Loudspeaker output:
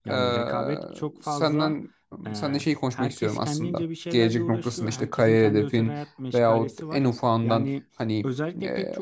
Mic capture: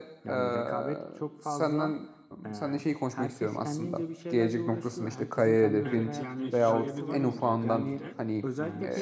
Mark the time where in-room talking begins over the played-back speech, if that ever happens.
5.8 s

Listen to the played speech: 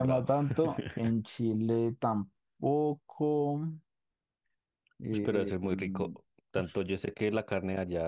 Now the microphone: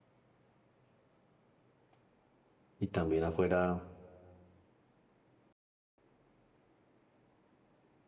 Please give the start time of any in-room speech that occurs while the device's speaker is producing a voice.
2.8 s

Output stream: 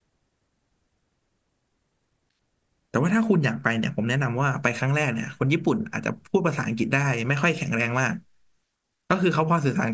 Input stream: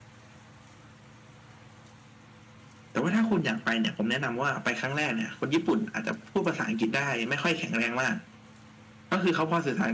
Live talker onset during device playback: none

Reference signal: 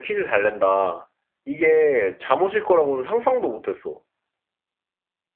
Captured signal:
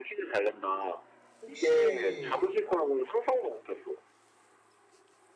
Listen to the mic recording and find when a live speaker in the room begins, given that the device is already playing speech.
1.4 s

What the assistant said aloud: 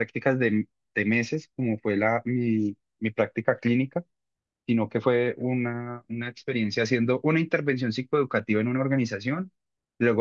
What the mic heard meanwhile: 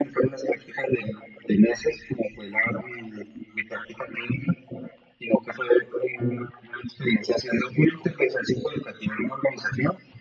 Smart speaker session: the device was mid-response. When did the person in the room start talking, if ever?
none

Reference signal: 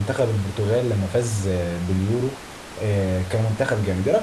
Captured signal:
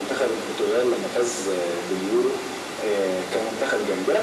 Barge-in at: none

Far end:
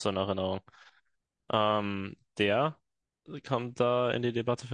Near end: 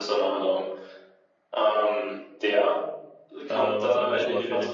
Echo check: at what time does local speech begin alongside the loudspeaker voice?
3.5 s

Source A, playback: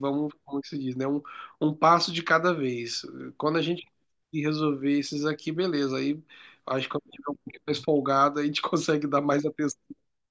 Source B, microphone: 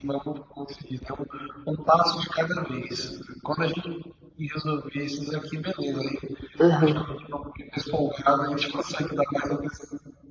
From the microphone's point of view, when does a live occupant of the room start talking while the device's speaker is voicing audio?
6.6 s

